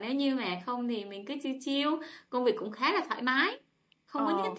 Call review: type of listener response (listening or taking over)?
listening